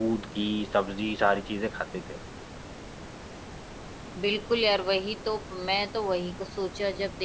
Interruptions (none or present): none